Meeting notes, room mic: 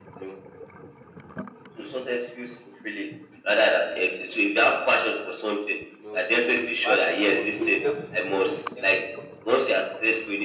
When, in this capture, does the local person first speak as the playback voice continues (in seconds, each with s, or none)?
6.0 s